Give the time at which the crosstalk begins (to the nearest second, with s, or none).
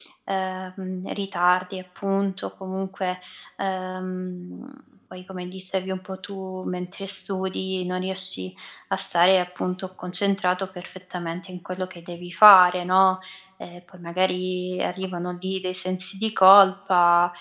none